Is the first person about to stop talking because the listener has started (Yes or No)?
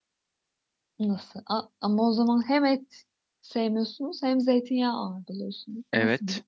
Yes